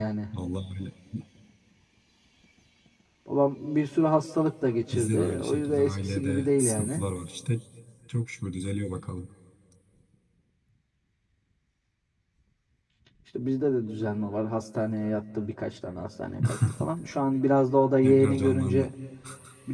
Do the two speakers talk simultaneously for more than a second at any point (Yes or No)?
Yes